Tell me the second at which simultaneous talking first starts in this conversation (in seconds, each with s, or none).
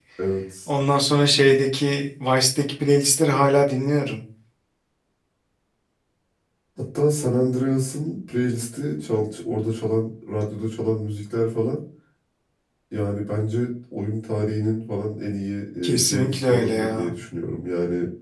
15.8 s